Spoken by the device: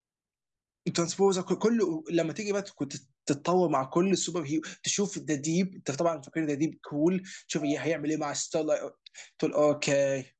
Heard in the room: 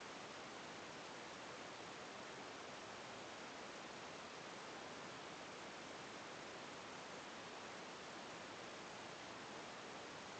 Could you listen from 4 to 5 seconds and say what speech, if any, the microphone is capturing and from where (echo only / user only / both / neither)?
neither